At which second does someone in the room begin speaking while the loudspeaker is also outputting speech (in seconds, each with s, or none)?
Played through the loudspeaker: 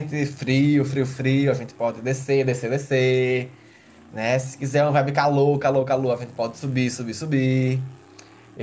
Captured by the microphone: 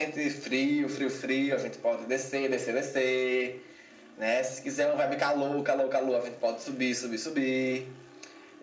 none